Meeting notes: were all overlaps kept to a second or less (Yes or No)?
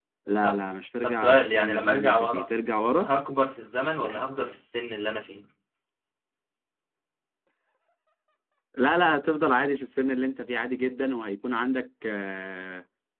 No